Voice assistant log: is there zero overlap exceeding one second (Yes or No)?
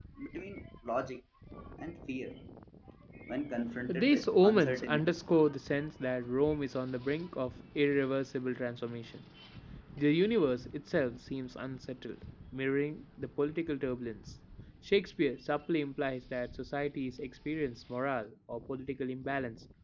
No